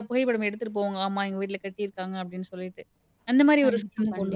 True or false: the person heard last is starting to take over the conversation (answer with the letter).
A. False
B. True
A